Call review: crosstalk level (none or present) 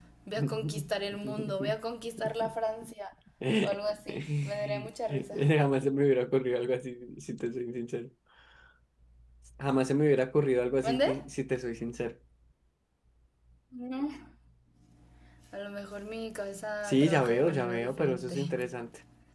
present